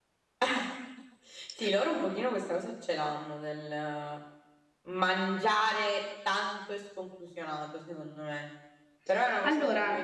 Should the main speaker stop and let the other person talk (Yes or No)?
No